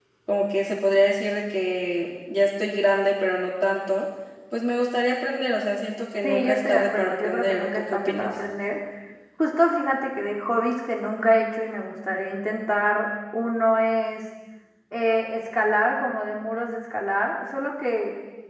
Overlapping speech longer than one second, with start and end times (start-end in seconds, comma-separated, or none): 6.2-8.3